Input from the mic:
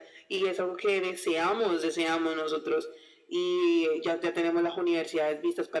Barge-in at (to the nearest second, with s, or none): none